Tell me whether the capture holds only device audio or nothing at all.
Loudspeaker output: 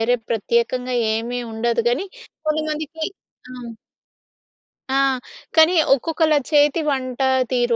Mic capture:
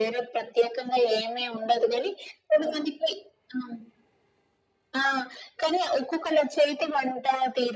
Yes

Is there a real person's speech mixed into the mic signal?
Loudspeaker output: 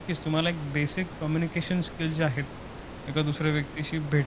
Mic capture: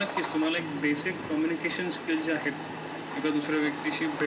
No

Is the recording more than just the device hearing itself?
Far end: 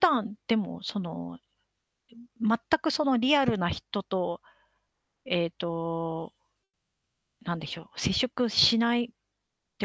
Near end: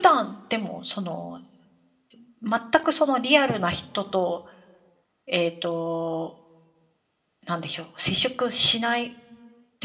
No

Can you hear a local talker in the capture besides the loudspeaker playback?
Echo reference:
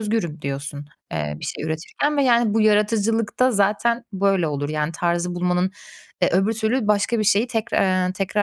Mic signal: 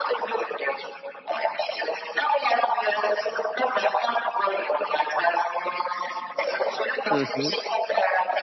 Yes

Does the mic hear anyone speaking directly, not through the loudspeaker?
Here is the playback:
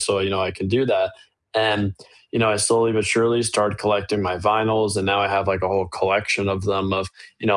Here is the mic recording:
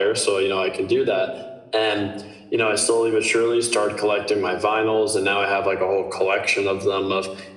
No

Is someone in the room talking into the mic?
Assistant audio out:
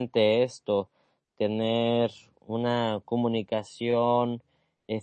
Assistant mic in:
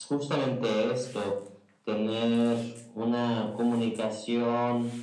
No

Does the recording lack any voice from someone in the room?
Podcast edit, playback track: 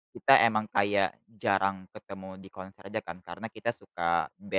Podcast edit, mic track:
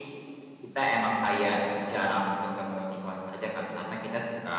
Yes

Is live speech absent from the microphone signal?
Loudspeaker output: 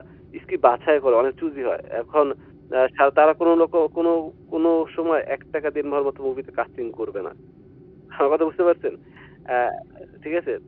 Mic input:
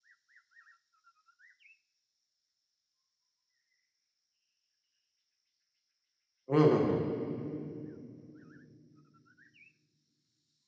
No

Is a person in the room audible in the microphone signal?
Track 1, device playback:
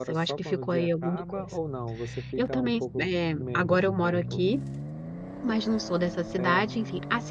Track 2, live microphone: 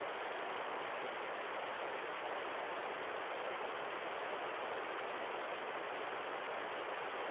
No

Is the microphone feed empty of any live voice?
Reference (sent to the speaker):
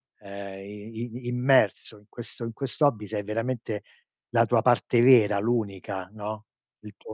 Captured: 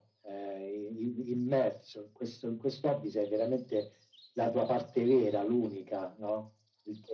Yes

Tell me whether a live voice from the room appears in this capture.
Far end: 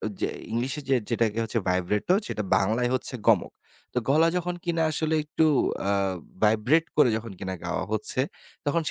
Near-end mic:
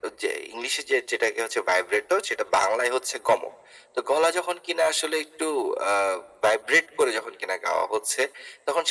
No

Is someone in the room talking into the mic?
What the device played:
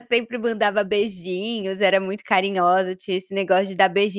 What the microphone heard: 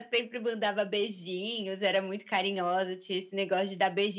No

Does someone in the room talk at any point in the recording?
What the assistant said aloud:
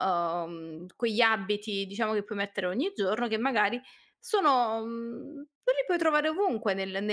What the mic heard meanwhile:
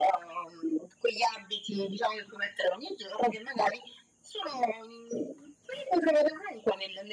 No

